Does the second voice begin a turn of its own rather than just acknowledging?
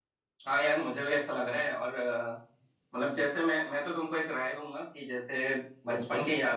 No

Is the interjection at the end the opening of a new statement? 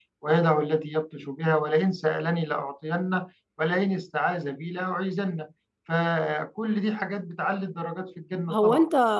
Yes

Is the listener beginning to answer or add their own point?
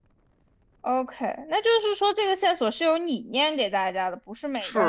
Yes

